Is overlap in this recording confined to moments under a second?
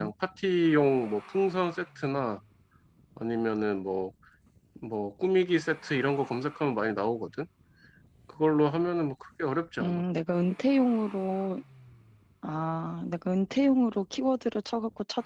Yes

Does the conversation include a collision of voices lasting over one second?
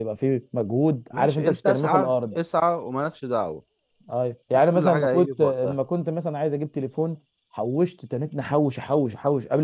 Yes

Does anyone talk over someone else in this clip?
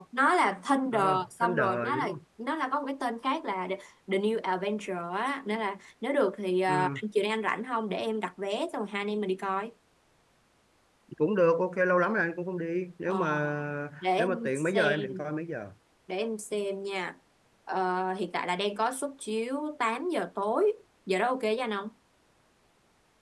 Yes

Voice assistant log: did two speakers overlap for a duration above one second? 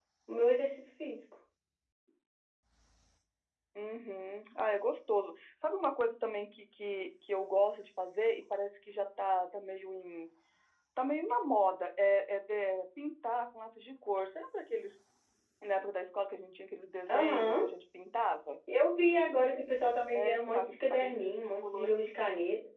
Yes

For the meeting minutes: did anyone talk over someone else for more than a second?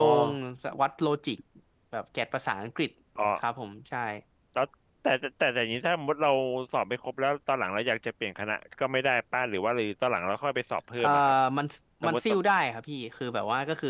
No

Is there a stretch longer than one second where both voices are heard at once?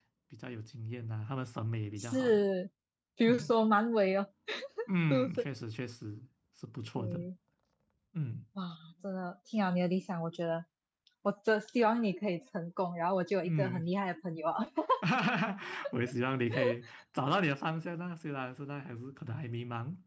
No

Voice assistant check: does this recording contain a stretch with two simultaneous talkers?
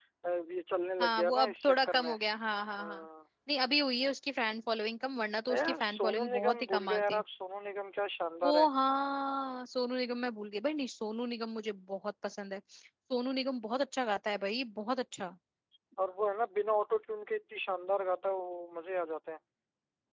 Yes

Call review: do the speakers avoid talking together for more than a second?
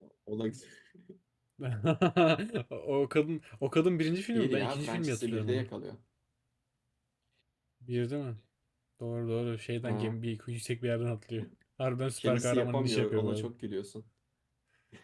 No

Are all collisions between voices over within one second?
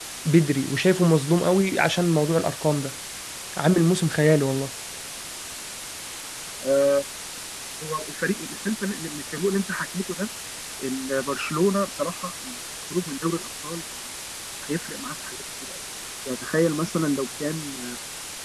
Yes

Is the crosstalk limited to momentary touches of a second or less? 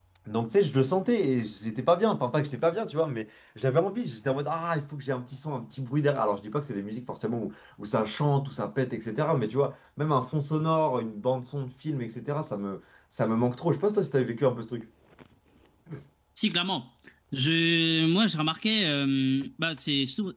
Yes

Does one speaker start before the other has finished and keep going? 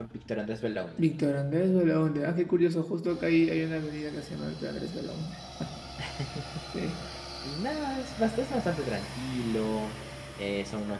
No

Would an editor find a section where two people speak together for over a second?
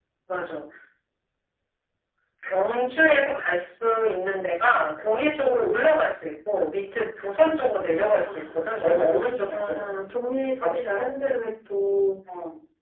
Yes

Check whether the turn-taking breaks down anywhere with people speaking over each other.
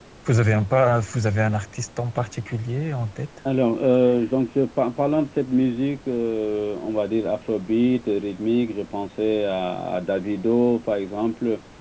No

